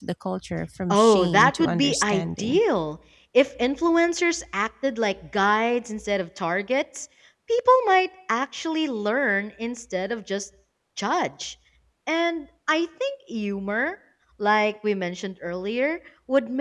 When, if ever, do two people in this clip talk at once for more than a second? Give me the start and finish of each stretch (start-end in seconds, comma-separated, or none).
0.9-2.6